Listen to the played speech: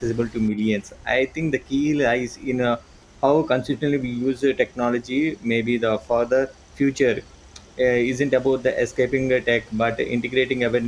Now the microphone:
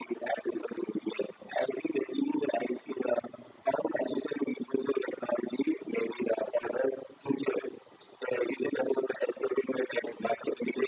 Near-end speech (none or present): none